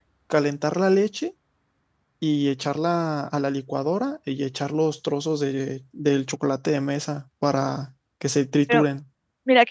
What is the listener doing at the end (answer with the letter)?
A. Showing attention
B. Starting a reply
B